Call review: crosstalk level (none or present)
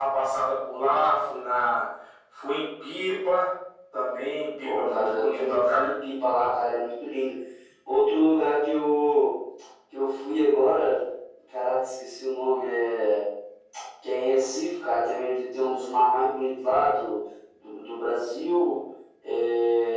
present